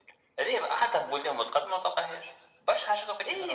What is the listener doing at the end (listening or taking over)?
taking over